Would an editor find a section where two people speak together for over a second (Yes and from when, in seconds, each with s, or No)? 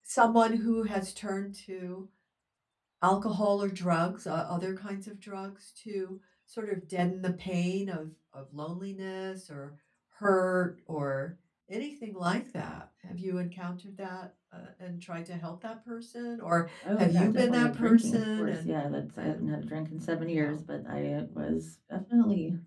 Yes, from 17.0 s